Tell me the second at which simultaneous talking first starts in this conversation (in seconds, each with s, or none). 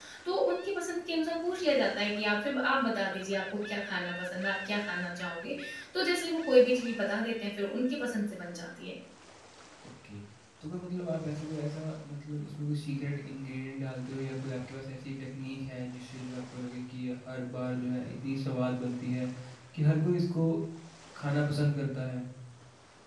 none